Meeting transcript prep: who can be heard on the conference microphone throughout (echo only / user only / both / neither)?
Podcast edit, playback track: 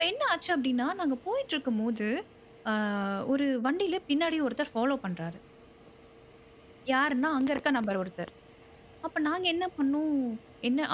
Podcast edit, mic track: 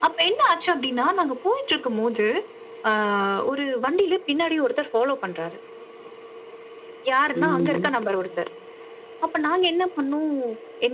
both